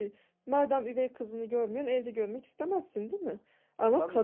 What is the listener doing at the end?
listening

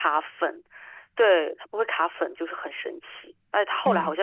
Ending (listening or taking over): listening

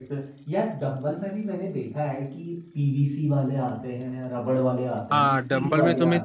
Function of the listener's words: taking over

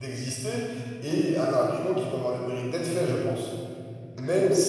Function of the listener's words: taking over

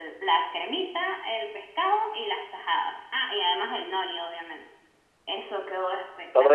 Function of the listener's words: taking over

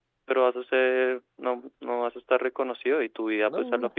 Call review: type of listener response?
listening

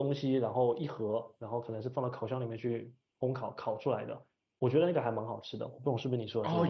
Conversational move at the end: taking over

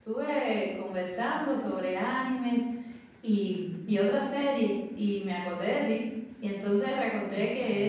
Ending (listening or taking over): listening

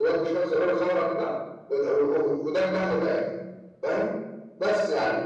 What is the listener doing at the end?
listening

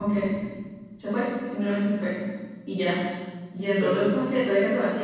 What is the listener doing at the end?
listening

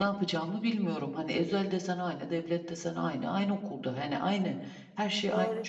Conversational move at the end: taking over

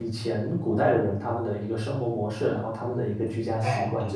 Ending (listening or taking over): taking over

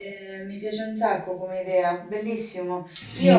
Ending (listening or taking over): taking over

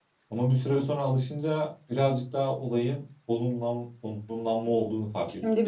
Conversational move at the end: taking over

